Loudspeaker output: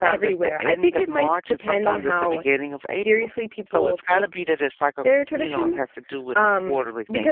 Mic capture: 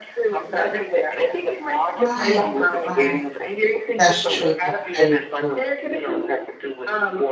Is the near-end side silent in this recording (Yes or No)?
No